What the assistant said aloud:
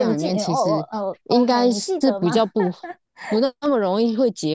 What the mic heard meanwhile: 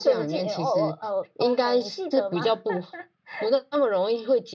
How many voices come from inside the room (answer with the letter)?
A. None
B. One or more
A